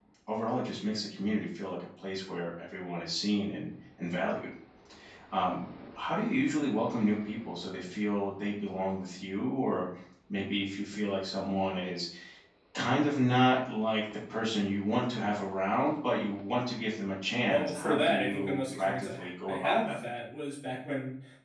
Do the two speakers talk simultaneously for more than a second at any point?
Yes, from 17.5 s

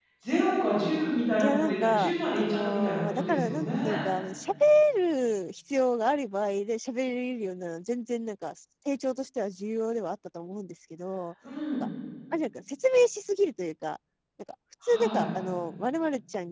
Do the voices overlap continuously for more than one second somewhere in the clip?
Yes, from 1.4 s

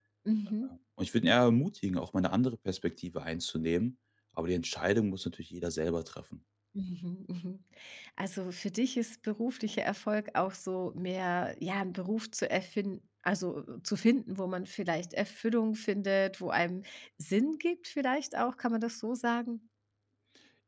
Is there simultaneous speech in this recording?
No

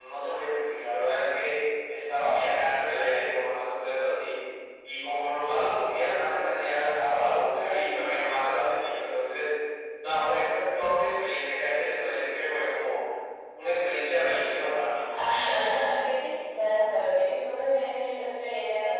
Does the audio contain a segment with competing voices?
No

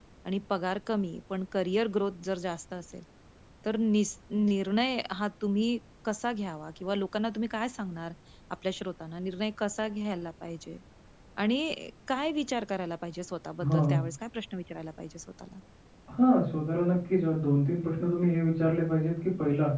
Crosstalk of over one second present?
No

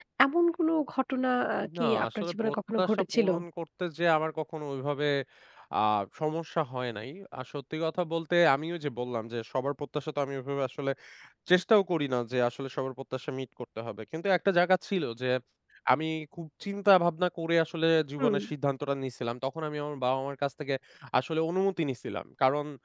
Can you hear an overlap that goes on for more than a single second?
Yes, from 1.8 s

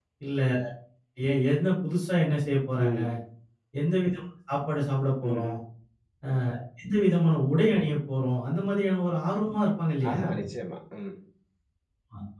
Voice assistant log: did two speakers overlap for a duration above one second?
No

